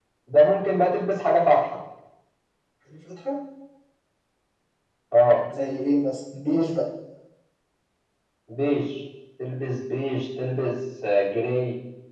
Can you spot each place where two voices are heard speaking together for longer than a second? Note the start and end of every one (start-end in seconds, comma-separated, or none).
none